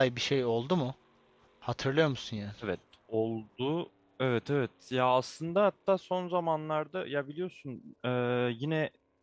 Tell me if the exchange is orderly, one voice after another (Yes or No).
Yes